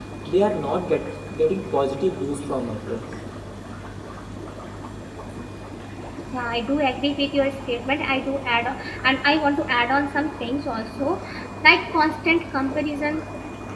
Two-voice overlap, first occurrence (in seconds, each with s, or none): none